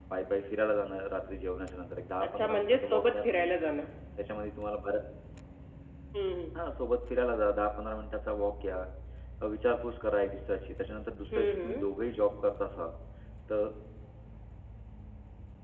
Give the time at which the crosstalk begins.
2.2 s

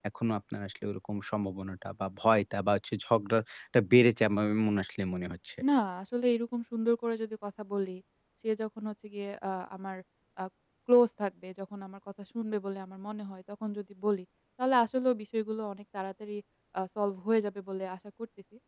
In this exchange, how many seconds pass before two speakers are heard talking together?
none

